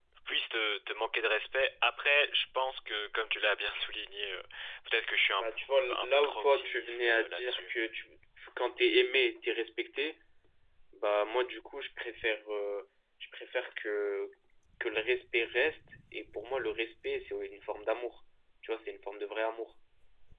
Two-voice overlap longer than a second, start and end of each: 5.9-7.7

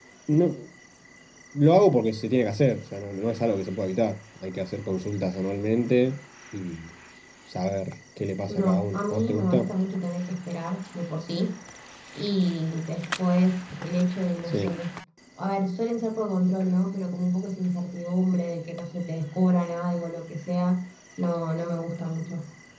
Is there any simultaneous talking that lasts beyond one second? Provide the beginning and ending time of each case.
8.5-9.7

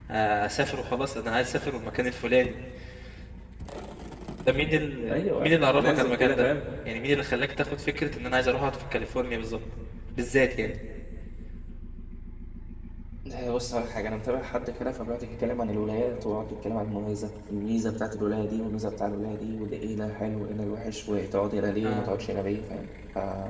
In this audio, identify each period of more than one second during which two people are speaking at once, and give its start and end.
5.1-6.5

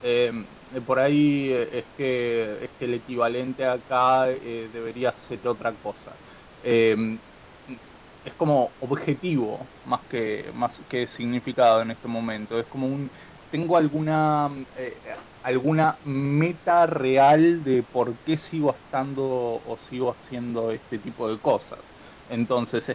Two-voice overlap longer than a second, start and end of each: none

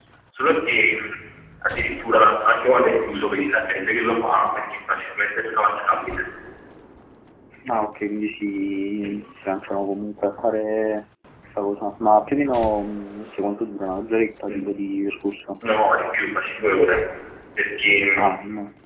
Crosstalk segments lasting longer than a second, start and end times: none

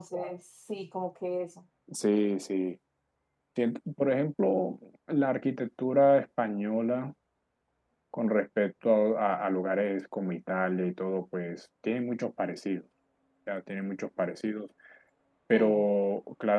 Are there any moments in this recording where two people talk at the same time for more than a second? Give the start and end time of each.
none

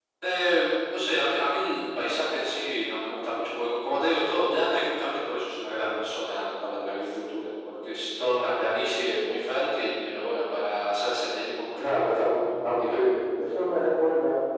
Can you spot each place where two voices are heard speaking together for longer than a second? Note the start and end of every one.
11.8-13.1

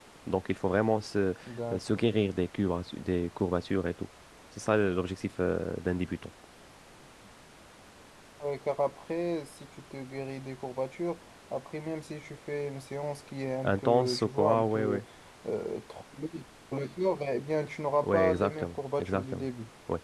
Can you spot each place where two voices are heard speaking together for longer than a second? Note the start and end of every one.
13.6-15.0, 18.0-19.5

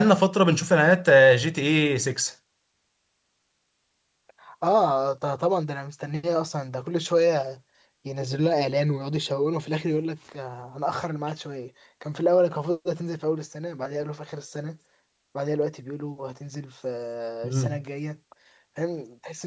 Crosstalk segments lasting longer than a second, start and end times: none

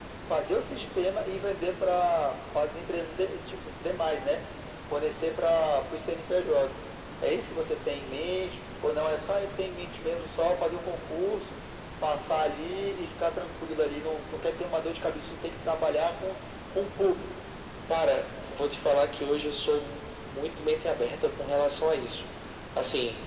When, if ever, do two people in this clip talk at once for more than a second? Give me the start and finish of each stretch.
none

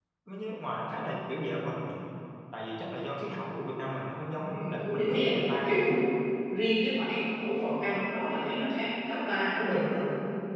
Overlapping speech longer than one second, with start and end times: 4.4-5.9

